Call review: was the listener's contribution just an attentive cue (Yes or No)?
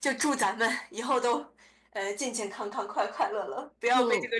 No